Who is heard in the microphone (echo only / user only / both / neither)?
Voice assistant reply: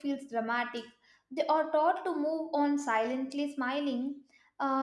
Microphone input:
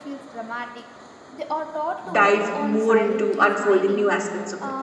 both